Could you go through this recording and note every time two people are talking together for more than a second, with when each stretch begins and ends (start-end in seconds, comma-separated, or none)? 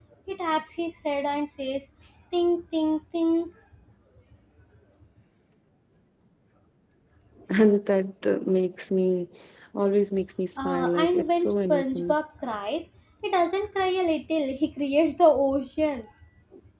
10.6-12.2